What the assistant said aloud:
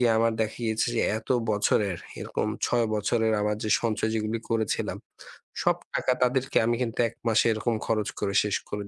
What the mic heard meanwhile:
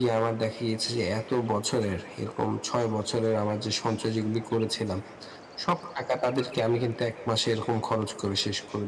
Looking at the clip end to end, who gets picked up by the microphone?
echo only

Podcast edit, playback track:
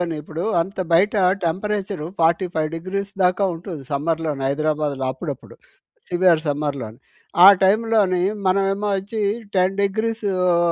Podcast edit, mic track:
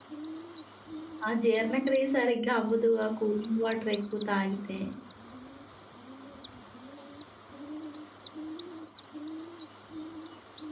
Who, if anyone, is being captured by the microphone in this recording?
user only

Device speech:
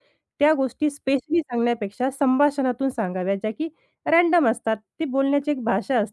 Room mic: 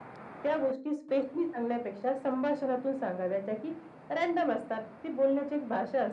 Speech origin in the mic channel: echo only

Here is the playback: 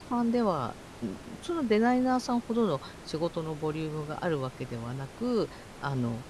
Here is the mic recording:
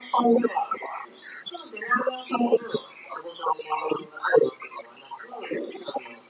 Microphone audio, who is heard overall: echo only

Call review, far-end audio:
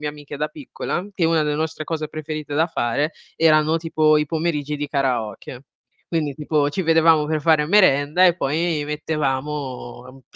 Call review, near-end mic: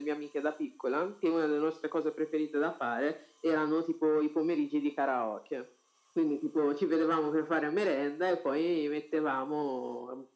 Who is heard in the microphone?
echo only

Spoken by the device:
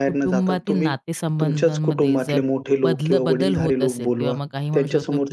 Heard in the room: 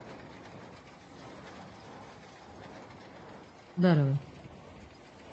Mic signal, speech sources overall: user only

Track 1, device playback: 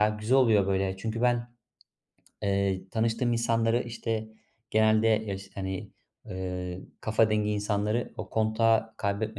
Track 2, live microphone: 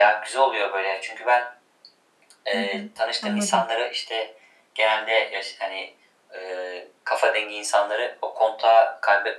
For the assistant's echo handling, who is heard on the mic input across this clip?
both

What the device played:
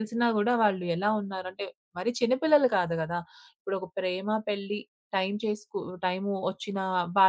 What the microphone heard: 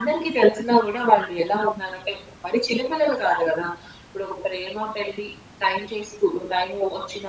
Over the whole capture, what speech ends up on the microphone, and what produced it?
echo only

